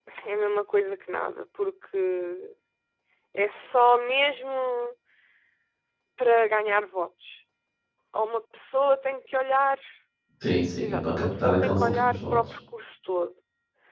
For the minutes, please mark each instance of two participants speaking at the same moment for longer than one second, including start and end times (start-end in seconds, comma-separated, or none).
10.8-12.4